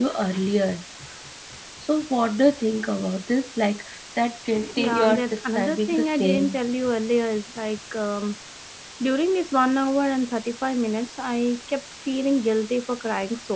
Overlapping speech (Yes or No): Yes